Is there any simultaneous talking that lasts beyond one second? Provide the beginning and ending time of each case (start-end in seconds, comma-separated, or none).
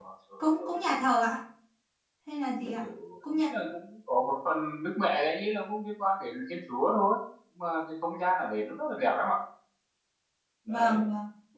none